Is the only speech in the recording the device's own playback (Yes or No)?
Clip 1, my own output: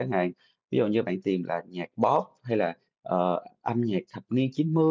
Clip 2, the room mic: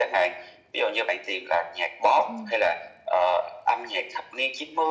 No